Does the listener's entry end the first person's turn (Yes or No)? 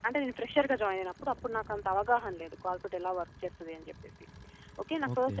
No